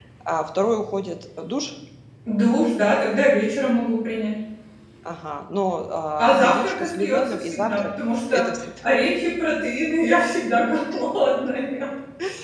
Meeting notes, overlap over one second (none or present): present